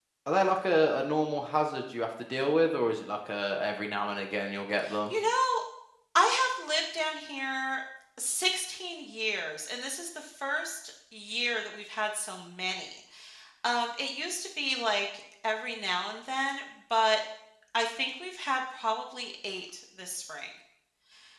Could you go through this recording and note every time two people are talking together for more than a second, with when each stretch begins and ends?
none

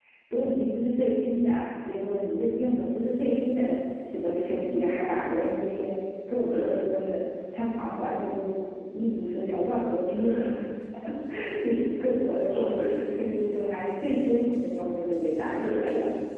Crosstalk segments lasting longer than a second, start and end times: none

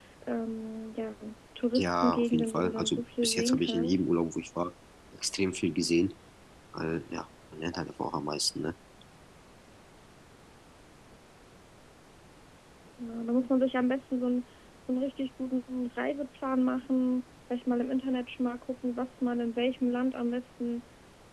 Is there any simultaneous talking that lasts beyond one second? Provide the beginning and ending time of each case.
1.7-4.0

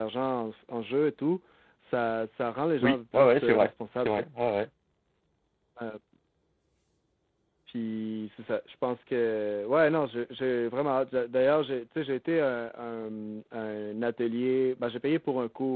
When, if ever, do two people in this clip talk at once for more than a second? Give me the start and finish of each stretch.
2.8-4.2

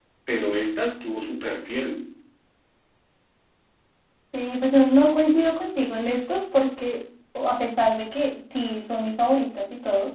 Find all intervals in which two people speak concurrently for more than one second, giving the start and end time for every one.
none

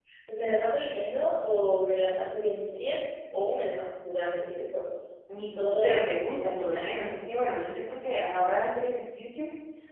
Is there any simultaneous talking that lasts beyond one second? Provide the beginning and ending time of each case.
5.4-7.2

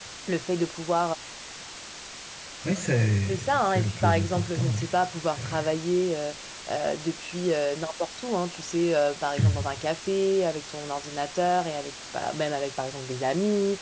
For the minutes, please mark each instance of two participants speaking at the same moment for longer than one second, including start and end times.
3.3-5.6

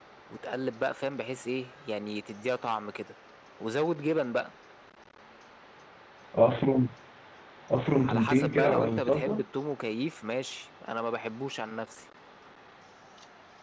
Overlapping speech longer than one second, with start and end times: 8.0-9.4

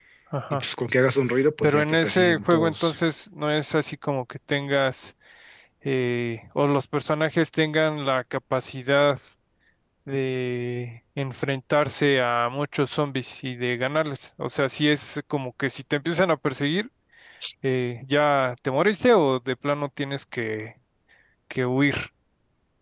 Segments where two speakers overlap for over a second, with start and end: 1.6-3.0

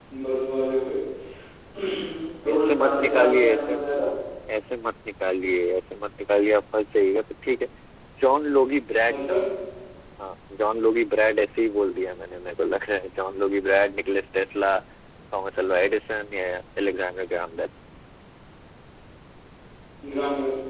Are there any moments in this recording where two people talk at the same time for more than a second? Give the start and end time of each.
2.5-3.8

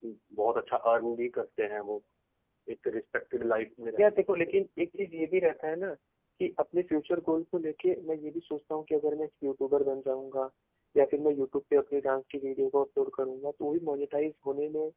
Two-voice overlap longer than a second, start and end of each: none

